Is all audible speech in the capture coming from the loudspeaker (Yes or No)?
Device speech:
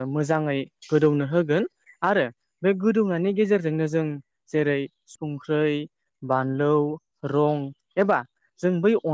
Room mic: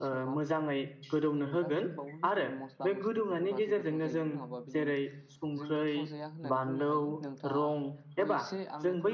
No